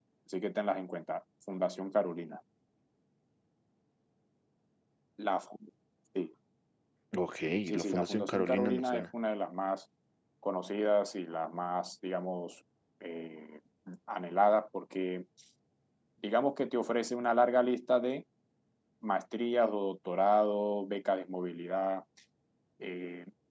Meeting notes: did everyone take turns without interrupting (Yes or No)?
No